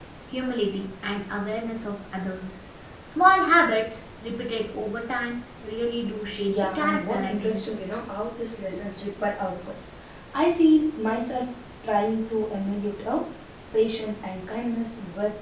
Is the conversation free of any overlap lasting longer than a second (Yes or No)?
No